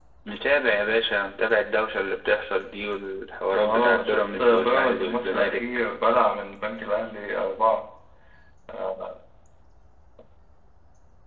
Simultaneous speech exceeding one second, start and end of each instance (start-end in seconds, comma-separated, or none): 3.6-5.7